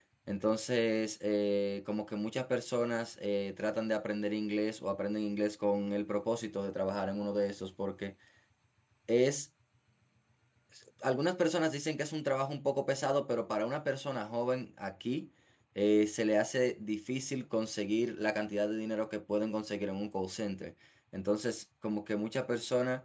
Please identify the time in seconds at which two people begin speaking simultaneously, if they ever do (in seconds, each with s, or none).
none